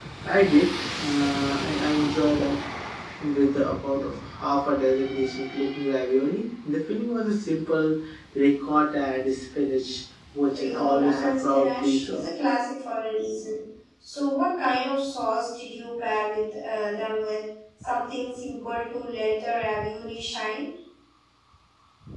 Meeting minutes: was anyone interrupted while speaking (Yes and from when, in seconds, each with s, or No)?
Yes, from 10.5 s